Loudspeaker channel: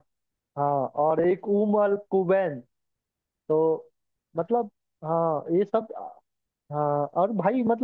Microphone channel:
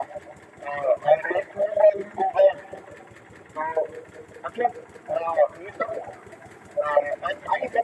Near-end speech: none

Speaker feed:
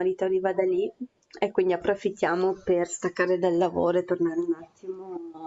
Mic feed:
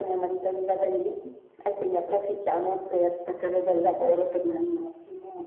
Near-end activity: none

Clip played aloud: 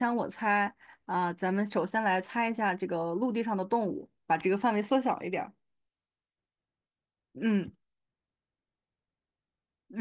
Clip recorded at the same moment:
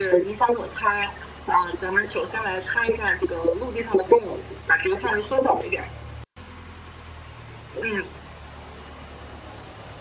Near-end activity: none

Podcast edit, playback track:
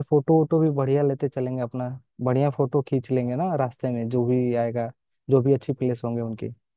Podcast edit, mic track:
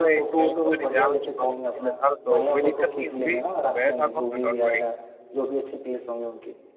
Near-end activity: present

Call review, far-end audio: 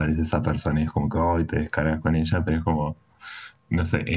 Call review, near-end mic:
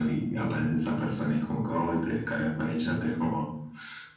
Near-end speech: none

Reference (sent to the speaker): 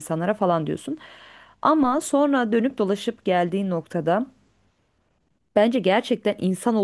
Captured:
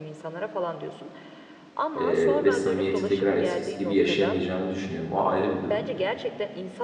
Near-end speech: present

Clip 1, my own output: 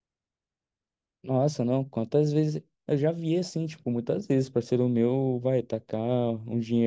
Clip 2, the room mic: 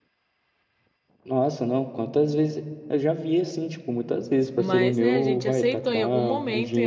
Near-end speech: present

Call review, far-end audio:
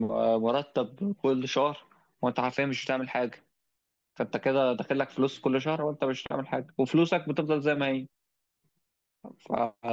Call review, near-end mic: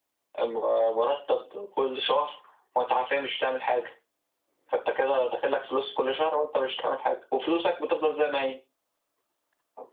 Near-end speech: none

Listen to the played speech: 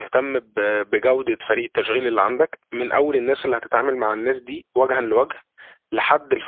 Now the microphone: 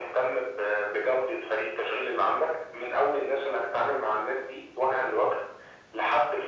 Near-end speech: none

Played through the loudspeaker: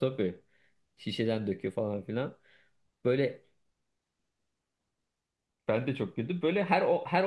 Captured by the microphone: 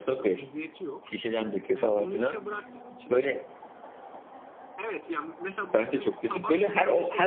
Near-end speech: present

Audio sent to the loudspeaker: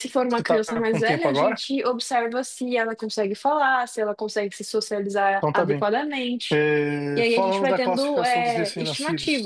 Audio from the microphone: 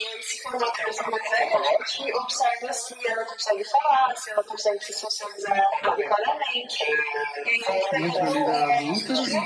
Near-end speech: present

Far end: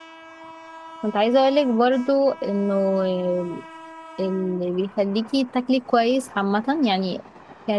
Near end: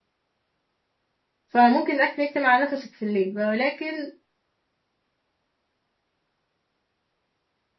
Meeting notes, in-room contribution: present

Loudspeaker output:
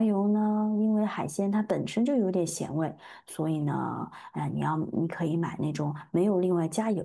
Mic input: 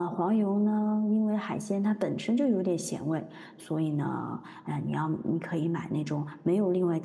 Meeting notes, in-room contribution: none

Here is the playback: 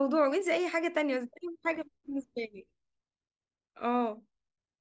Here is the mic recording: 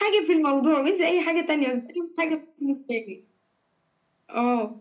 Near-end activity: none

